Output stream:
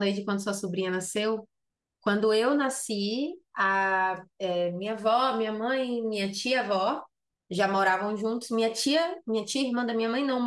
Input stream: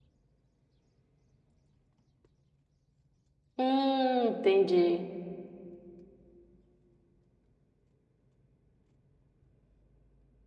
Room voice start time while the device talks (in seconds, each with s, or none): 3.6 s